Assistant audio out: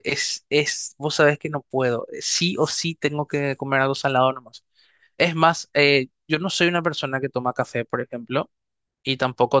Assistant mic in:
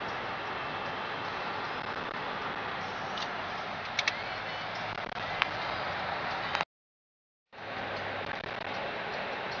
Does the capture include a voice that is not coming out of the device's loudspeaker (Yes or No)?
No